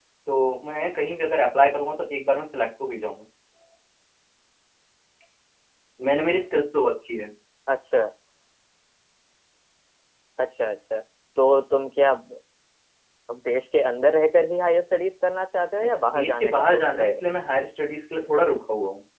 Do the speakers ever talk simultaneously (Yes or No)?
Yes